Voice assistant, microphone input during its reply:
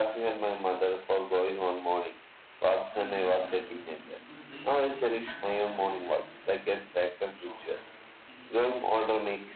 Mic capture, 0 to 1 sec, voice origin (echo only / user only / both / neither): echo only